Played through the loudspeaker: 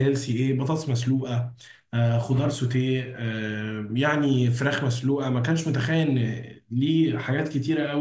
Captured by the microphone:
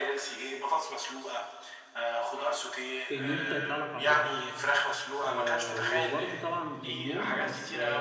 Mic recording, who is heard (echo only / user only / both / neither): both